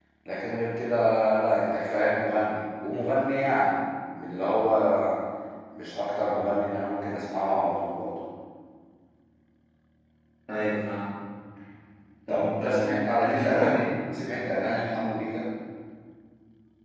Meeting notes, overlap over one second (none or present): present